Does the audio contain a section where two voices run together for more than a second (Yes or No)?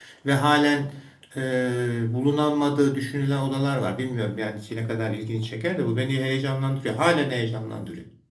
No